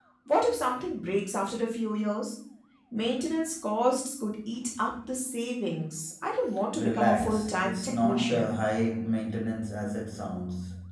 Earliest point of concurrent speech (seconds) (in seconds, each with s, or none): 6.8 s